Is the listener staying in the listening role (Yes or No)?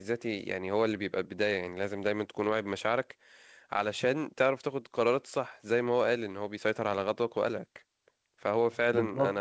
Yes